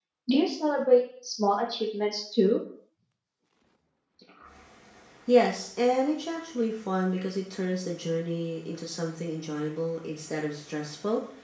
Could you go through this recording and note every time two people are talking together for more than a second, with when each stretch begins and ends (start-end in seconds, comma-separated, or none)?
none